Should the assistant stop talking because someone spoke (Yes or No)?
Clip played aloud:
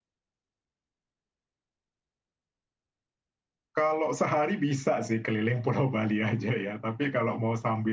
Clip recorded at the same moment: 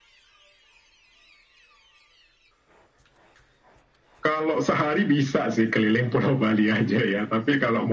No